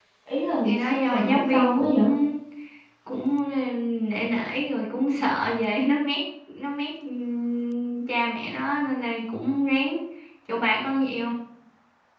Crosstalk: present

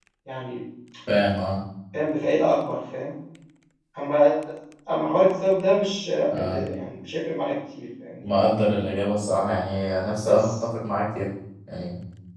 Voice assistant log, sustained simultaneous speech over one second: none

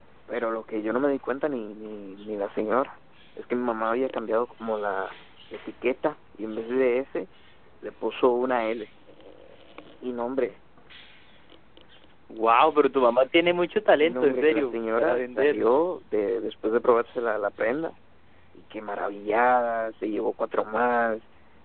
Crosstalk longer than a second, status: present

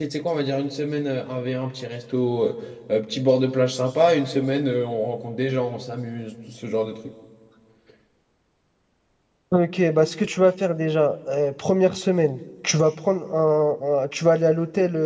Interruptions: none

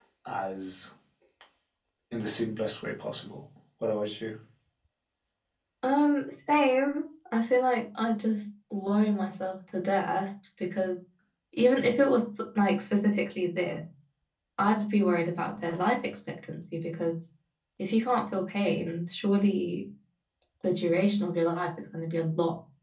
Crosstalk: none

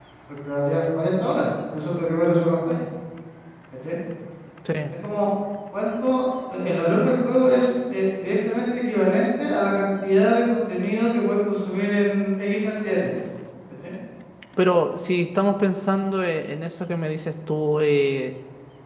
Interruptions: none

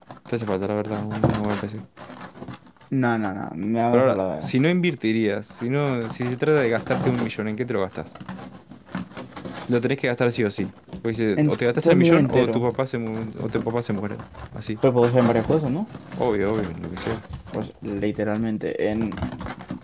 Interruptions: present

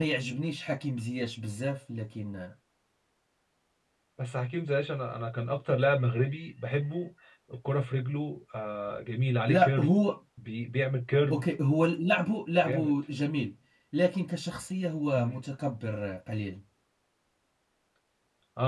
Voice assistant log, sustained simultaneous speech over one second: none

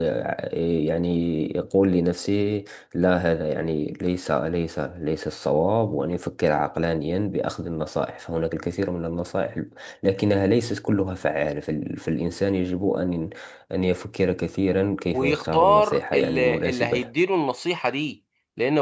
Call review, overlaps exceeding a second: present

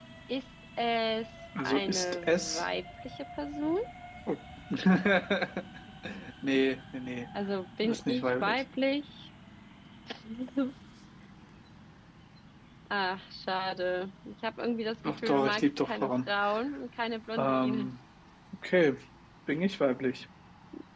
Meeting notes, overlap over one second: present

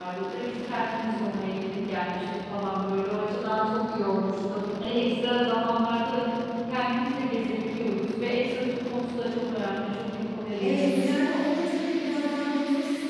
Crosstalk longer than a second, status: none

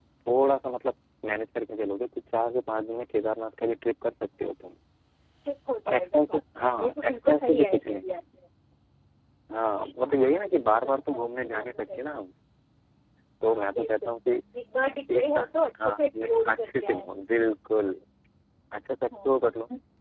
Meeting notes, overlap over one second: present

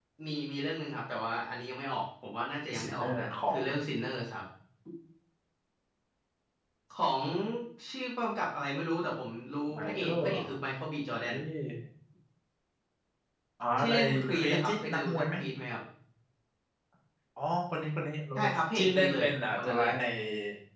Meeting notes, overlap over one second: present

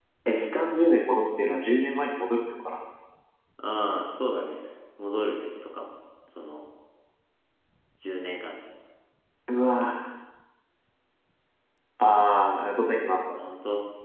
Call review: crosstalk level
none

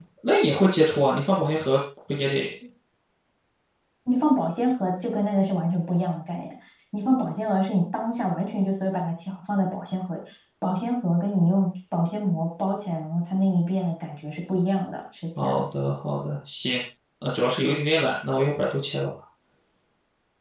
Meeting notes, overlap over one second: none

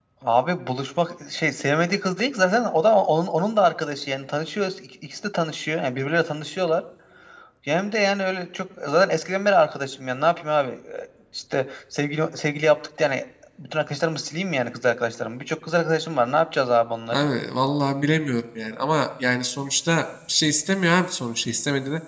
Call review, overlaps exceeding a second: none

